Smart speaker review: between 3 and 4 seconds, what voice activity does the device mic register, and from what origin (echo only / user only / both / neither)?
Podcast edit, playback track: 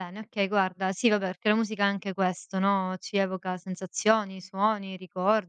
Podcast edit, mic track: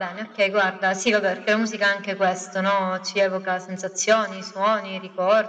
echo only